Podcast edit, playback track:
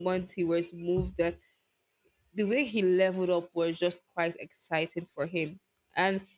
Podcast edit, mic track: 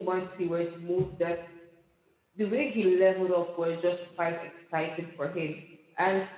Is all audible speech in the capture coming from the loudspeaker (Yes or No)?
Yes